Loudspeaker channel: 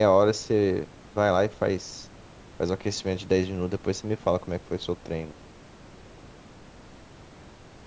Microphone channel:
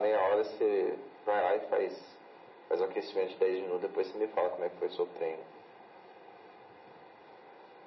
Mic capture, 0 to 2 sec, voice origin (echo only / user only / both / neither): echo only